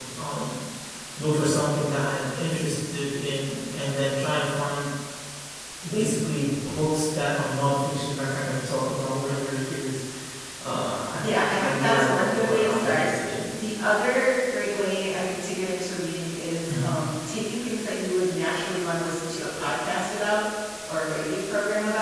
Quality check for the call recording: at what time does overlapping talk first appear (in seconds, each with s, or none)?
11.7 s